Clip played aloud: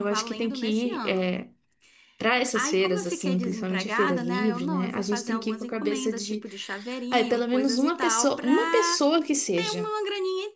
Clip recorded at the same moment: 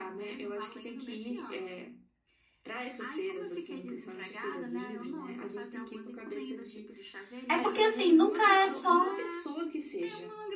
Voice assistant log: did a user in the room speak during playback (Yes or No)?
Yes